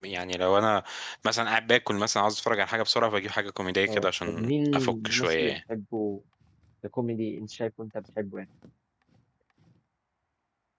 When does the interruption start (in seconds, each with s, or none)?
3.9 s